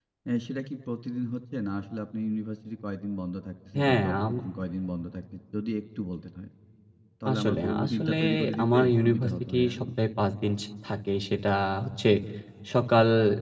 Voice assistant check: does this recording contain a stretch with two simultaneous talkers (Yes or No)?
Yes